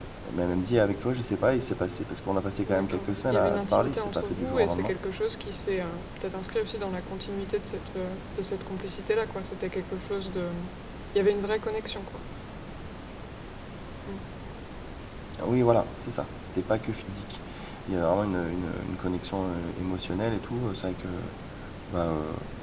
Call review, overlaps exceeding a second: present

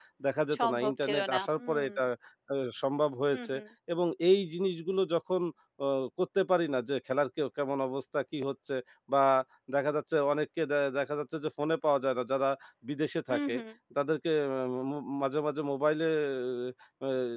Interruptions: present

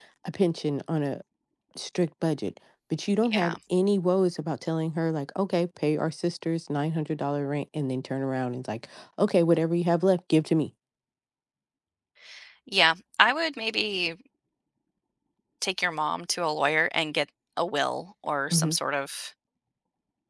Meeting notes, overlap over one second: none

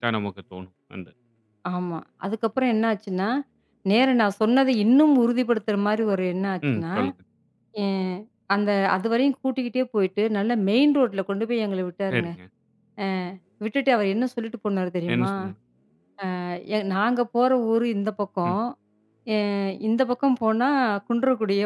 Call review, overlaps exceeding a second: none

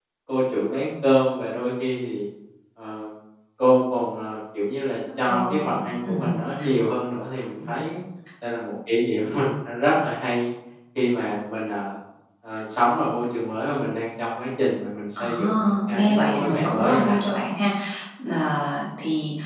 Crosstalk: present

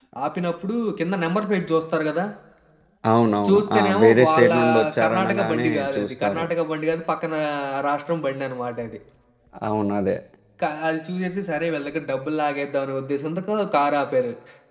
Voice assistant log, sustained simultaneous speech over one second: present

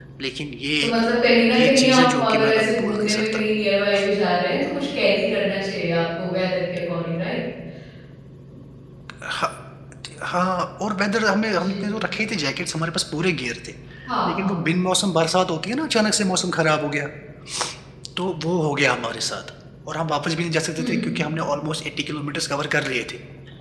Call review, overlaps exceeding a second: present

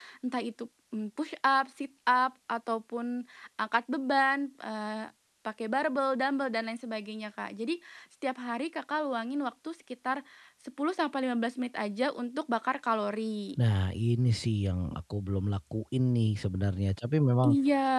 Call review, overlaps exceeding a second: none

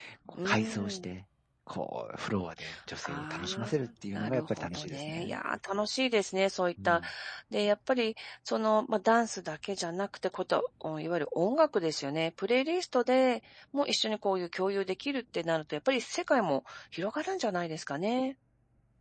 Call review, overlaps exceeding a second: present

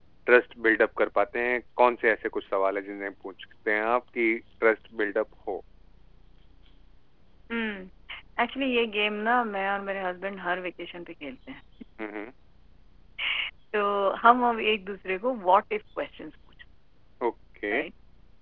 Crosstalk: none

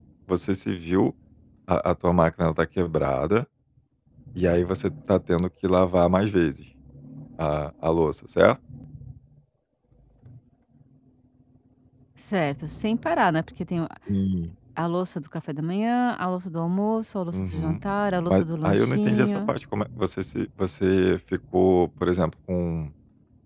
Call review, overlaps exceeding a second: present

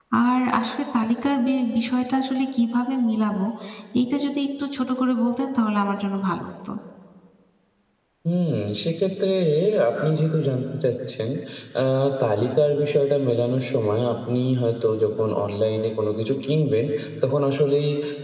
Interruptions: none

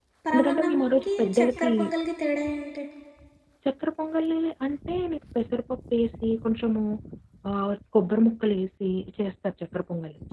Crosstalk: present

